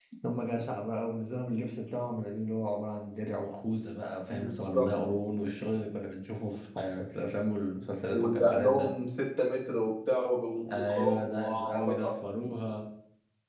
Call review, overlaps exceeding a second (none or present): present